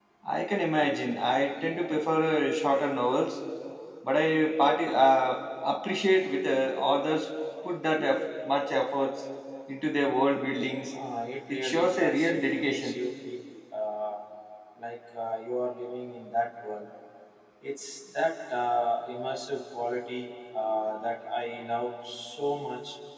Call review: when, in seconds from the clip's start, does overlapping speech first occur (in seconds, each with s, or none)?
11.5 s